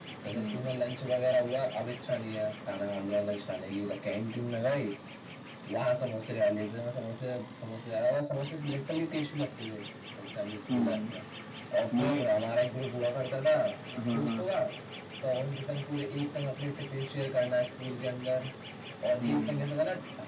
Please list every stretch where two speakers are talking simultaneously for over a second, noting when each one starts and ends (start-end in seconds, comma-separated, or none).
none